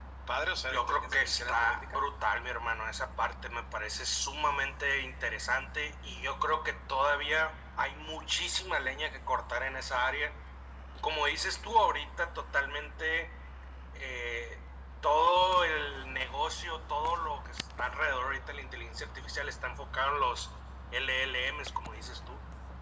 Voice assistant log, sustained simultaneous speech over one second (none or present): present